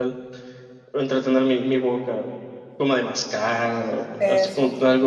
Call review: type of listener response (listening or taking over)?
listening